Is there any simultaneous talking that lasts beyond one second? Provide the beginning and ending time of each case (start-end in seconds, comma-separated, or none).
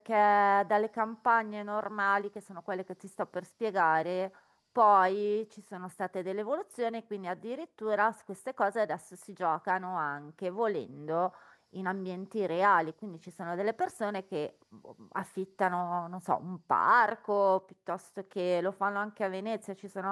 none